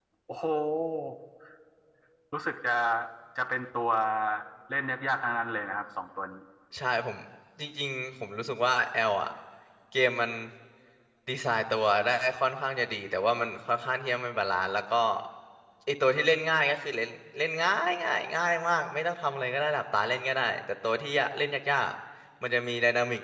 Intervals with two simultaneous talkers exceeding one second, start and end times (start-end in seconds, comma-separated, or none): none